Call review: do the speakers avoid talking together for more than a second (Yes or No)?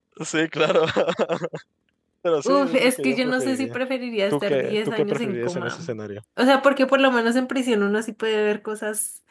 No